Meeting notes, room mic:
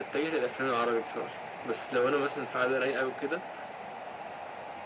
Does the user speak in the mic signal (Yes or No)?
No